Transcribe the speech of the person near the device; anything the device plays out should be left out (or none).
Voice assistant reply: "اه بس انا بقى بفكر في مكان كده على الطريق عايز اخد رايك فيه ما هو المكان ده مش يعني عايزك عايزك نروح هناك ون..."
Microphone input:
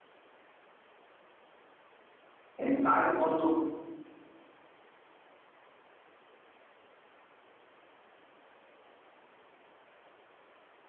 انت عارف برضو